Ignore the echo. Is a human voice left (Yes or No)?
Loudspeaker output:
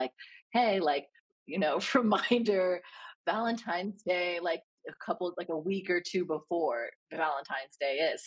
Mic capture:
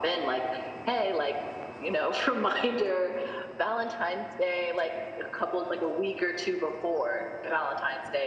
No